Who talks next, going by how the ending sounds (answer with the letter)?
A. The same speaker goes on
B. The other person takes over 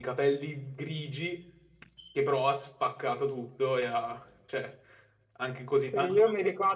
B